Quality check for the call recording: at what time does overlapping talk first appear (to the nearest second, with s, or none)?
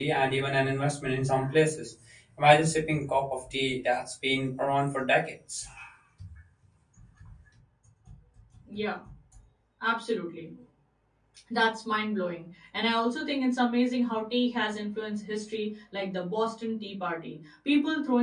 none